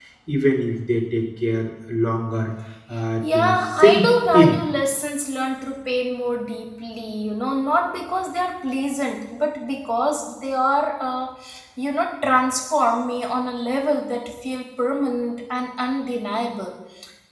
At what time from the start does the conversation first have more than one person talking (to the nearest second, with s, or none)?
3 s